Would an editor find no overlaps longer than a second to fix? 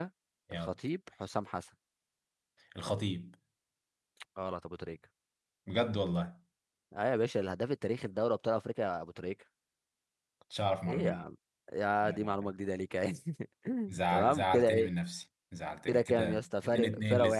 No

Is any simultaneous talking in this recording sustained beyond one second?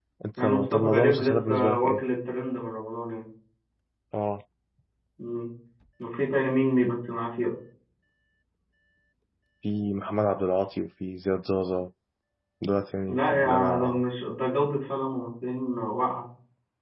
Yes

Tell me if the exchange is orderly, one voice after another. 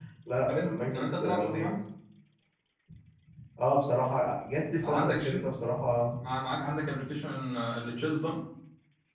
No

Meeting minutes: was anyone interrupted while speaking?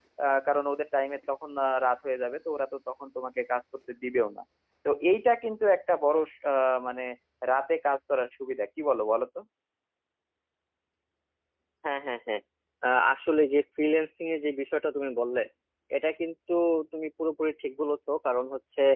No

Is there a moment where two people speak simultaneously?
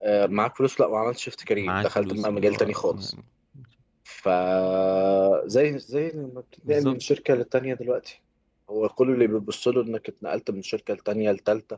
Yes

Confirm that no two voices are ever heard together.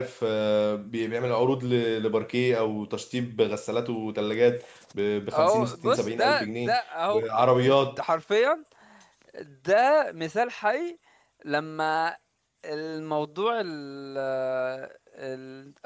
No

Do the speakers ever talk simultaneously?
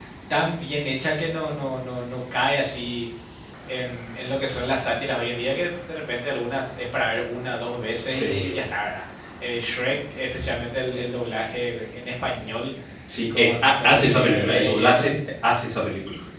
Yes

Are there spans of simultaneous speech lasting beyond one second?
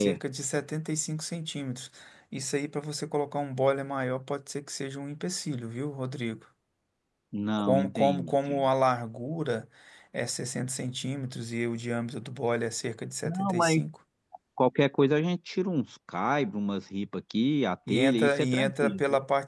Yes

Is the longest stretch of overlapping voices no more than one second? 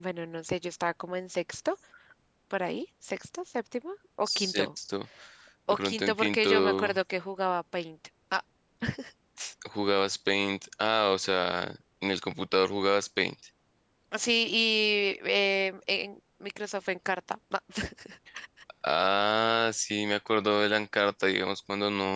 No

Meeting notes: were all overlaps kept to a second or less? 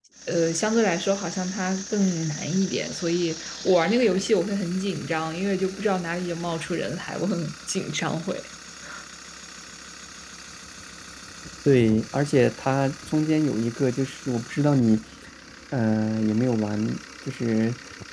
Yes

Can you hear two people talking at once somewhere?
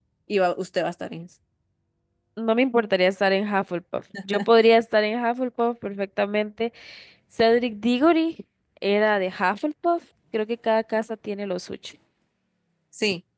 No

